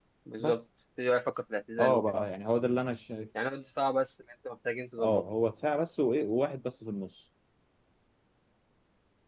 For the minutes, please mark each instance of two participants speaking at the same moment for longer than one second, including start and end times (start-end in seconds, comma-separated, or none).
none